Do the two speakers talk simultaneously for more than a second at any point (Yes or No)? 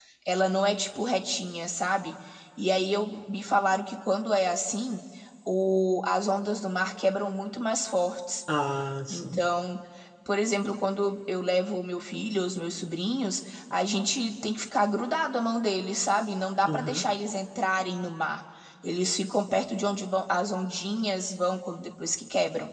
No